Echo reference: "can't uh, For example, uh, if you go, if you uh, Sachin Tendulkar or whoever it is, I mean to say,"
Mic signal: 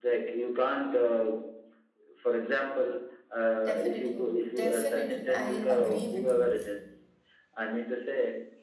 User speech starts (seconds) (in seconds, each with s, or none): 3.6 s